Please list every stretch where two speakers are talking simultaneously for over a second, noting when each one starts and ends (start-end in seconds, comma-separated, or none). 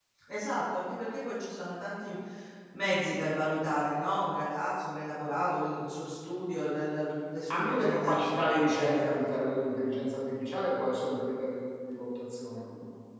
7.5-9.1